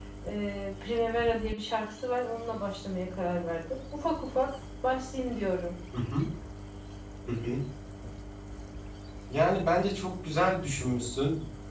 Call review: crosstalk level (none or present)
none